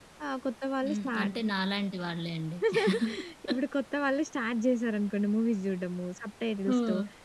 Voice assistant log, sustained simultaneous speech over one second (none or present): none